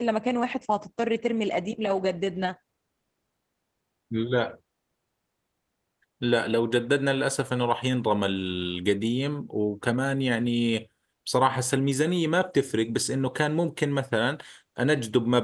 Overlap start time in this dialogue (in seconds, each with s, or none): none